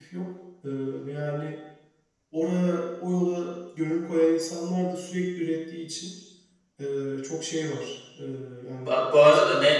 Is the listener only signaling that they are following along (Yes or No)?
No